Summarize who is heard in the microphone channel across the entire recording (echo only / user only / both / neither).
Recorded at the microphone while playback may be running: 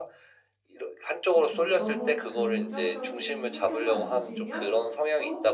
both